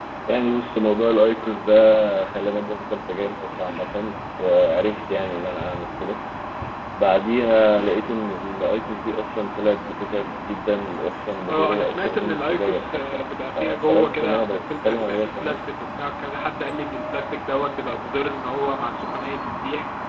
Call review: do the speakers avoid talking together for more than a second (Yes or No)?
No